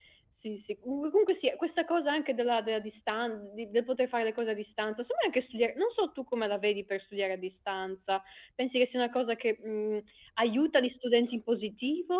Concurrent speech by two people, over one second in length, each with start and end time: none

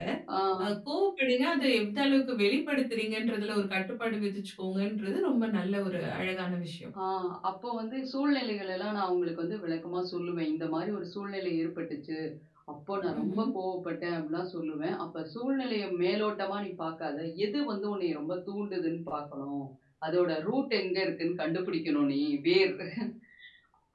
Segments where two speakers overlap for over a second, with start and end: none

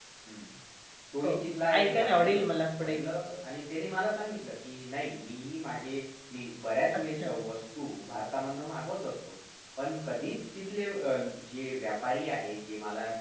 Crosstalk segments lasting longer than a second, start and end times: 1.8-3.0

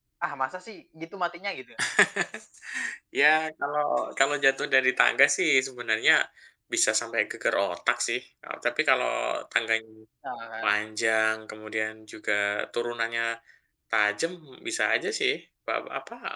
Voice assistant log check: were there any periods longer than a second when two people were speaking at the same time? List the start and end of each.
none

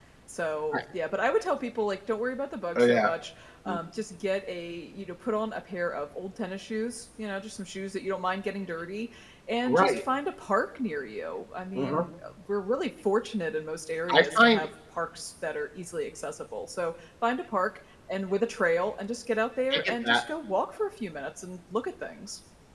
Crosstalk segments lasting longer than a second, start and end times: none

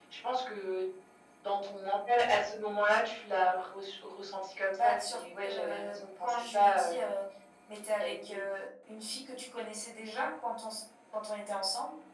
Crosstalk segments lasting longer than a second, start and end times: 4.8-6.9

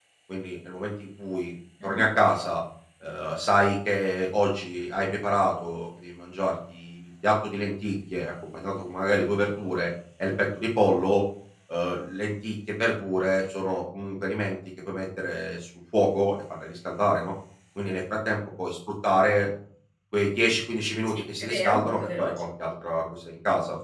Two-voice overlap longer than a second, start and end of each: 21.1-22.4

